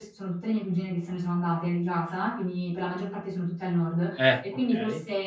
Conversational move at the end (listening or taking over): listening